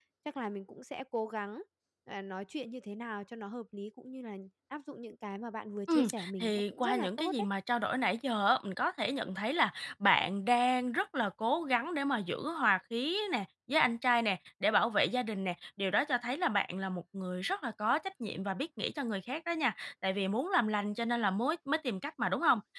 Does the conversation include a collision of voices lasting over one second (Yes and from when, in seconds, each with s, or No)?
Yes, from 5.9 s